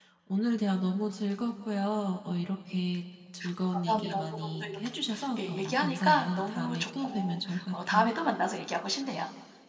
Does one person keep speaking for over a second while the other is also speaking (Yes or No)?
Yes